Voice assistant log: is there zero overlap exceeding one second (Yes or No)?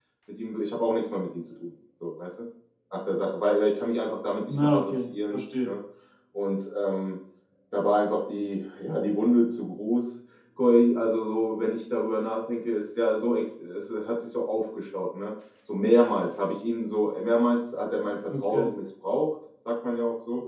No